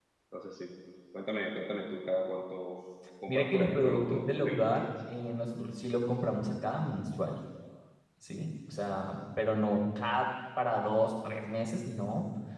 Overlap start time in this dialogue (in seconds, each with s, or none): 3.3 s